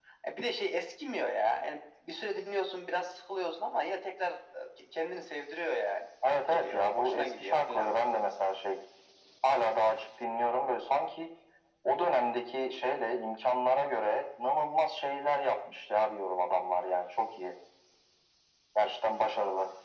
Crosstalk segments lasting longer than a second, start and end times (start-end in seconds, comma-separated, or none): 6.3-7.9